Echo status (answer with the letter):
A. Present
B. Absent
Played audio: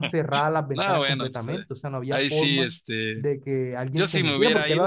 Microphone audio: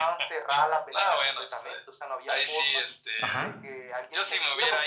A